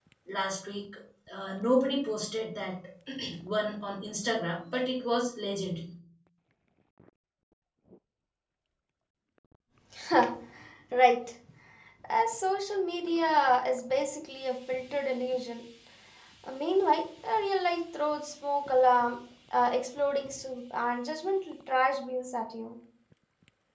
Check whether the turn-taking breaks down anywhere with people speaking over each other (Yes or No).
No